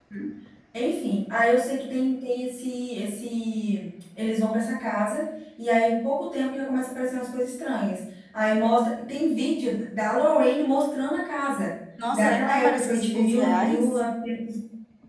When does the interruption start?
12.0 s

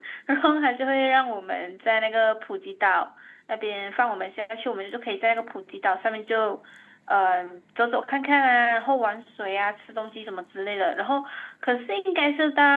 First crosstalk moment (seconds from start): none

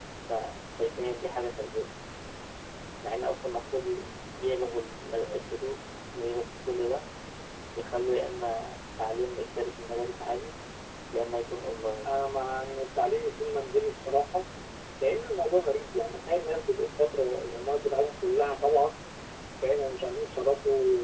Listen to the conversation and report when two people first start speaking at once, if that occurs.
none

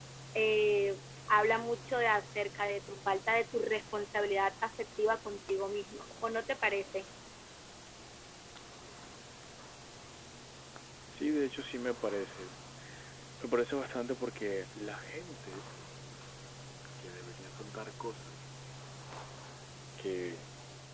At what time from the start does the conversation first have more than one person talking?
none

